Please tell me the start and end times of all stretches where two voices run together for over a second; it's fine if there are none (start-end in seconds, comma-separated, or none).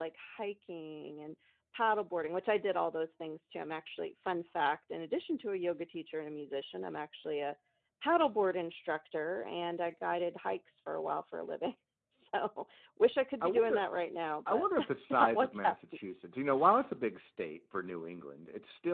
14.5-15.8